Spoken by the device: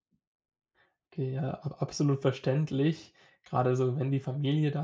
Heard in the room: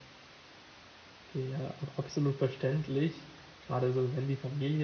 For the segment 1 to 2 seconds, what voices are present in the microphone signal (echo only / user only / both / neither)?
echo only